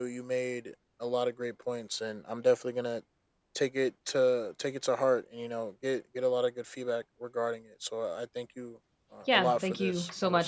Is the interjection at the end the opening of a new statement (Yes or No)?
Yes